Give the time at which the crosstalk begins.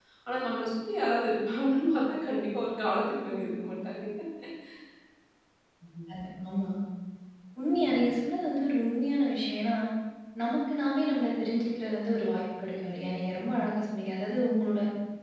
none

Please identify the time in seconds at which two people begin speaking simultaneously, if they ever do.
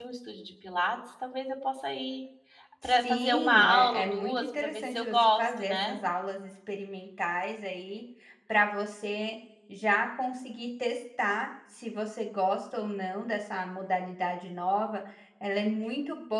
2.8 s

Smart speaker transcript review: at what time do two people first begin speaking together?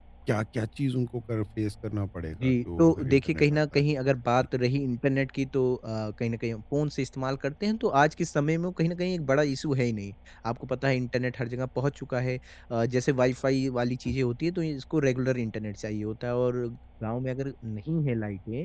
2.3 s

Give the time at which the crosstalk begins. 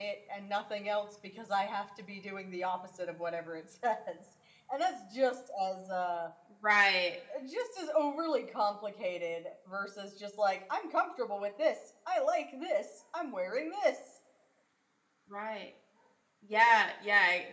none

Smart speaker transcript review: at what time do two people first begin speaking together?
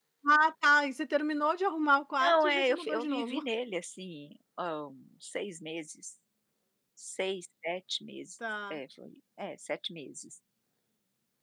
2.2 s

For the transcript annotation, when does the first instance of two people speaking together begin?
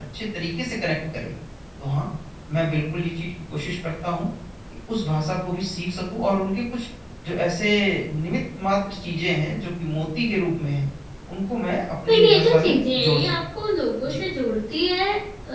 12.0 s

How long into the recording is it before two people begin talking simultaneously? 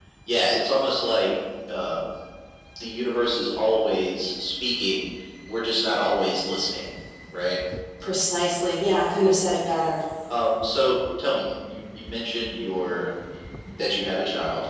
none

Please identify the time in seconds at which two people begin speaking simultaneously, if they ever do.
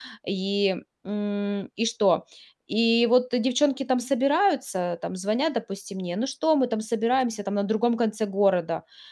none

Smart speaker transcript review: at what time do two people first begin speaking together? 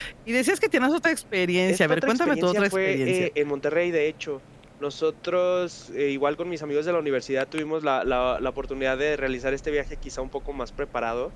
1.7 s

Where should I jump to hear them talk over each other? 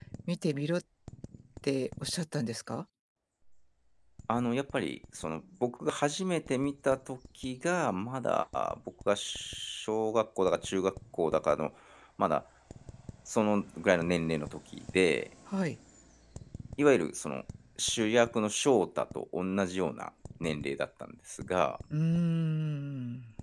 none

